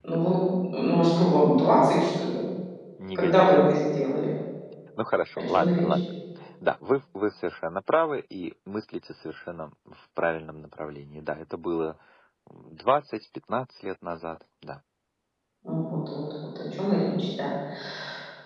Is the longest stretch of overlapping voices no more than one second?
Yes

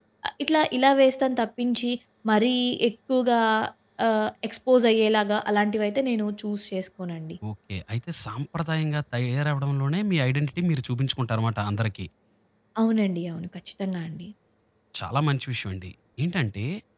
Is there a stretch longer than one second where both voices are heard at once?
No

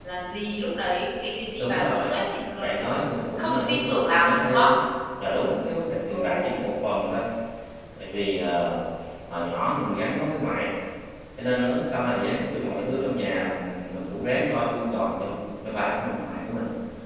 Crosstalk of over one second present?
Yes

